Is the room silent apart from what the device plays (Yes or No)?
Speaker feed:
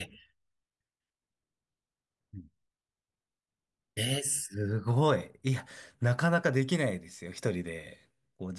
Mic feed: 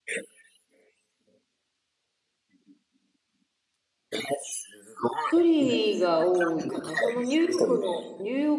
No